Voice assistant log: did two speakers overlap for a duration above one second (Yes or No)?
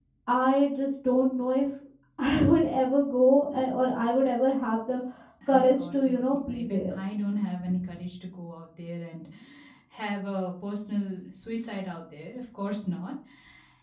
Yes